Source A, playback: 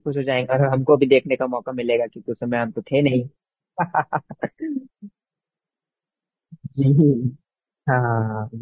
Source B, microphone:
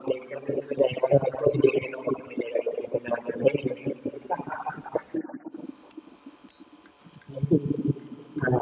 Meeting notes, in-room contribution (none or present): none